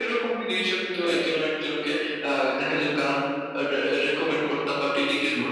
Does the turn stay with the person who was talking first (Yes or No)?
No